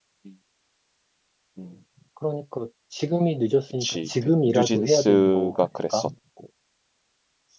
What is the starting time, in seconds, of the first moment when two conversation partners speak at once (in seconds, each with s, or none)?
3.8 s